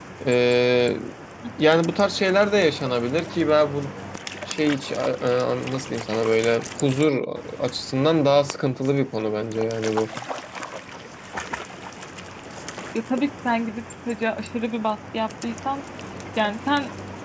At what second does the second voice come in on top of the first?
none

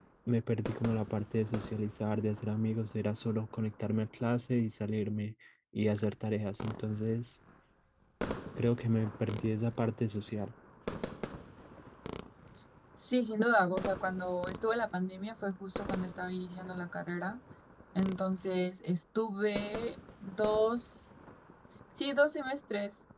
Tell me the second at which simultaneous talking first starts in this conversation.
none

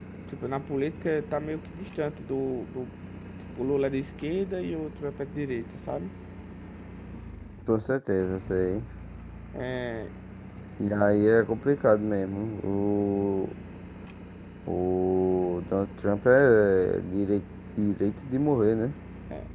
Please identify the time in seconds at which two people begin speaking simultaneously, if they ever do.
none

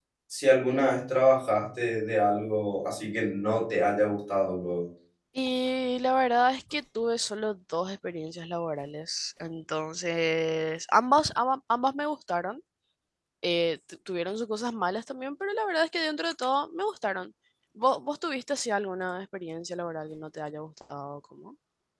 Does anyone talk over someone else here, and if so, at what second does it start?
none

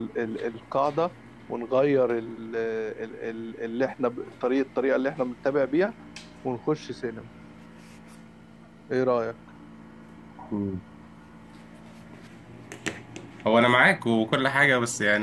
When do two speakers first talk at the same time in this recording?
none

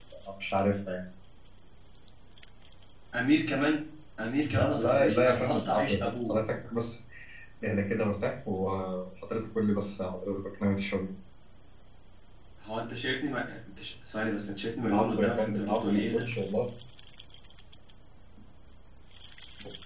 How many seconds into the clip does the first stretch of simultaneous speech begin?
4 s

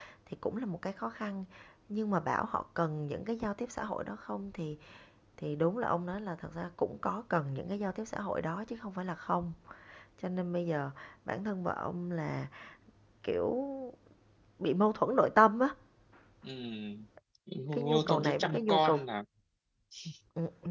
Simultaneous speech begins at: 18 s

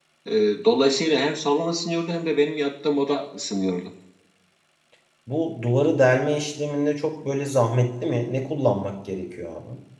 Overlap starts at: none

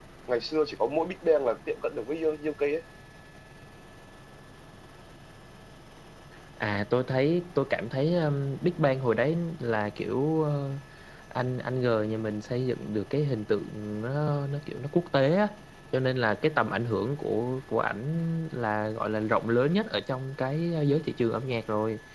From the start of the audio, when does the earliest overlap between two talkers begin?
none

